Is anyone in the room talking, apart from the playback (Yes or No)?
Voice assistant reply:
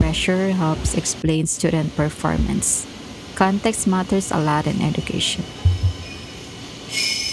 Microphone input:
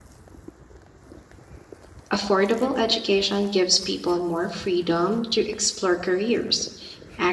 Yes